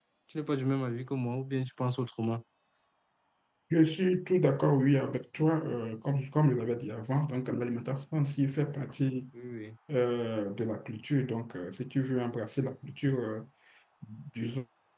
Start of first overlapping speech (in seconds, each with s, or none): none